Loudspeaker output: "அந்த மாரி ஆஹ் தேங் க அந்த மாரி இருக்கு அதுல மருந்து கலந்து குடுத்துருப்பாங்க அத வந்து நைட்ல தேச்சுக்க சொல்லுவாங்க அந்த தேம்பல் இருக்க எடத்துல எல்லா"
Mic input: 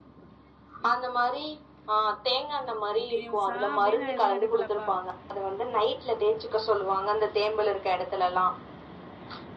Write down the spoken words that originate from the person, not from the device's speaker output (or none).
கண்டின்யூஸா அப்டின் நா எதுவு எடுக்கலப்பா